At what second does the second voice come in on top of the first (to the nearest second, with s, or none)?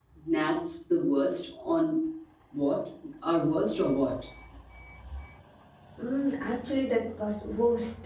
none